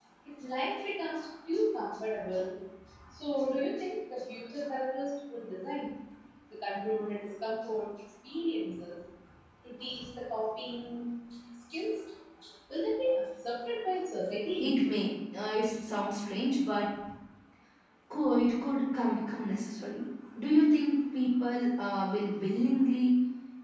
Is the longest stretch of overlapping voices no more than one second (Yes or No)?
Yes